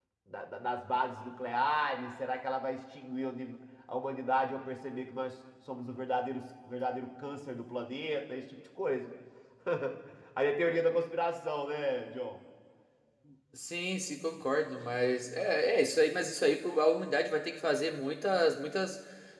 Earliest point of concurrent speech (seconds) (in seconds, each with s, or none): none